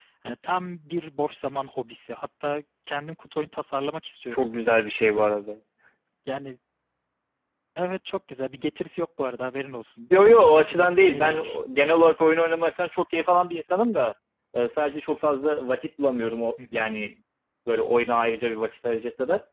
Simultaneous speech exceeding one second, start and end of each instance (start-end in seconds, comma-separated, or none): 10.2-11.6